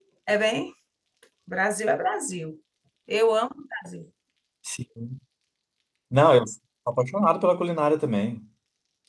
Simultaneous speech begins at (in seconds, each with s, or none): none